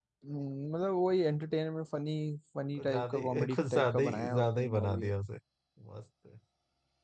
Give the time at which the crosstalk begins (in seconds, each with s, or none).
2.8 s